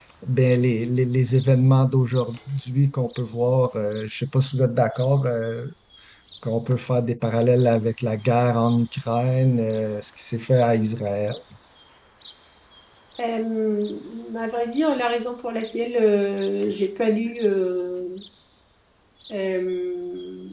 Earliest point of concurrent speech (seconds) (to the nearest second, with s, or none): none